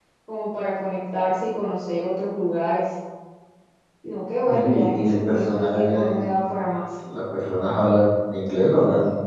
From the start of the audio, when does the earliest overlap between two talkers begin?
4.5 s

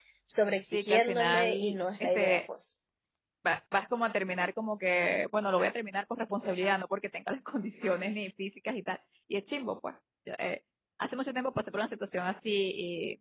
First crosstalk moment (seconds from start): 0.7 s

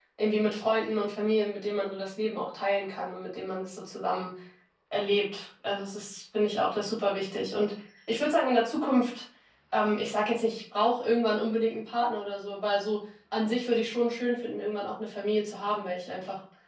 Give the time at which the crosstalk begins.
none

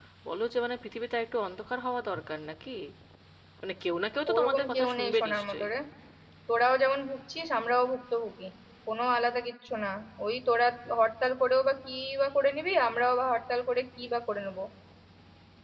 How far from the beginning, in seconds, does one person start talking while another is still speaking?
4.3 s

